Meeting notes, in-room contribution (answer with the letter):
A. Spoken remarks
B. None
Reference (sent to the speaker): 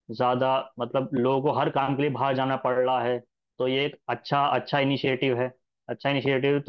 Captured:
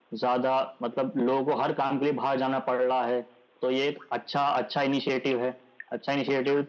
B